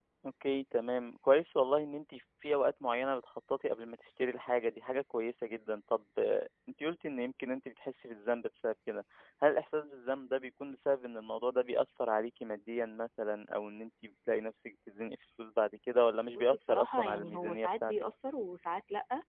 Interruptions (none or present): present